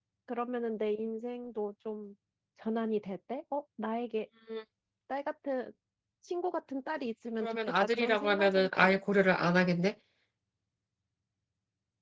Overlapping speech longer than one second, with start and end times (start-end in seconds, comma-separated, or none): 7.4-9.0